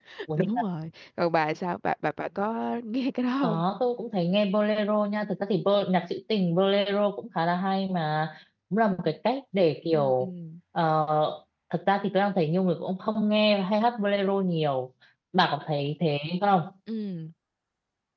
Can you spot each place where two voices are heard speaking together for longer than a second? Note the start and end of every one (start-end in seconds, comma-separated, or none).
none